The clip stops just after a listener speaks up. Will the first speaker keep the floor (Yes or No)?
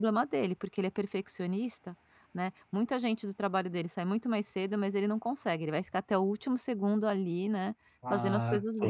No